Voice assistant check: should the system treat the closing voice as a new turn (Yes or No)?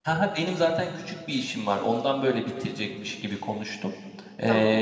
No